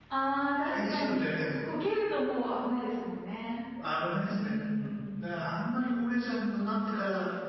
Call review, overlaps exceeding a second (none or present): present